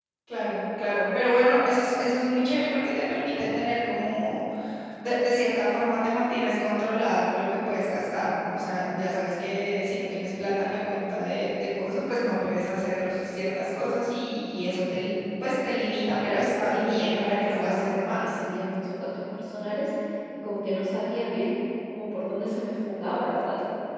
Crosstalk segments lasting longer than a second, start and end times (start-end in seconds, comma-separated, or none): 16.2-18.4